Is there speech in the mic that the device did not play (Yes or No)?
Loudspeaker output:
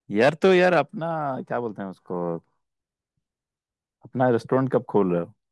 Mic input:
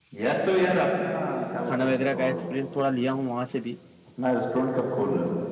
Yes